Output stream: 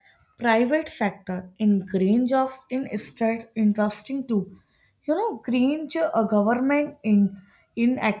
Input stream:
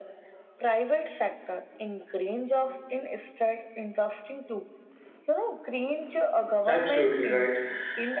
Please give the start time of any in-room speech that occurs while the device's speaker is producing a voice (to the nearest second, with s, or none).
7 s